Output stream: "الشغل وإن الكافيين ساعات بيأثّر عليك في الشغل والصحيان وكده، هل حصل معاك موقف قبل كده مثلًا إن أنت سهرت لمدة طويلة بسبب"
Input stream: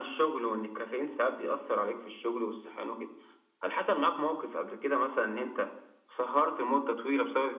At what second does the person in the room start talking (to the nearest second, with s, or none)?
none